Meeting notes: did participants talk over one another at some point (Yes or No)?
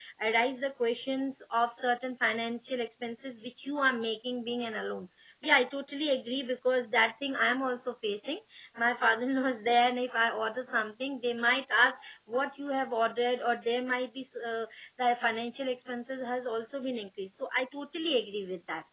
No